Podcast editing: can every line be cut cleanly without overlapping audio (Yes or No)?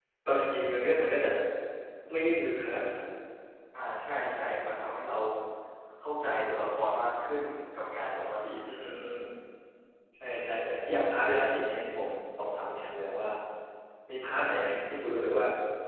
Yes